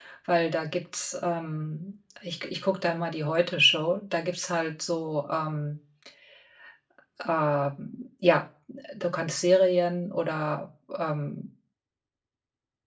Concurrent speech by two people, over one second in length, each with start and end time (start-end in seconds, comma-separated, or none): none